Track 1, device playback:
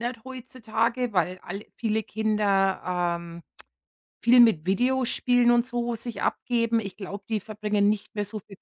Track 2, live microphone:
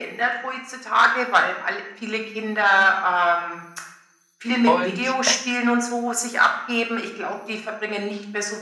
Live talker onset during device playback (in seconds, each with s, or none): 4.6 s